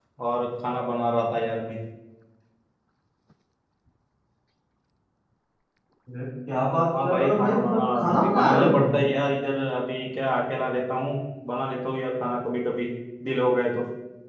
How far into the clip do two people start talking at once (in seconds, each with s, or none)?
6.9 s